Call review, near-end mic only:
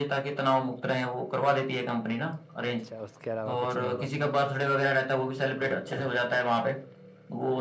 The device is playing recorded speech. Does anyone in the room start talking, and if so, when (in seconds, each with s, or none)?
2.6 s